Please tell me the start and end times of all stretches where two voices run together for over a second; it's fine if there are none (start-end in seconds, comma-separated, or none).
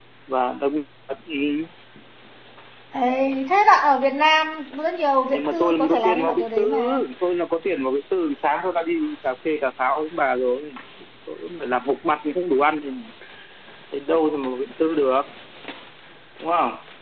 5.3-6.8